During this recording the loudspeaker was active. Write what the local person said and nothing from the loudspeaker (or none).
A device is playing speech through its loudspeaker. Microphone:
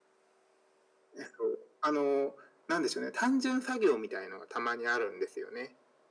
none